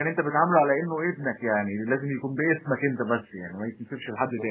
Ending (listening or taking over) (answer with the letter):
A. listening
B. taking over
B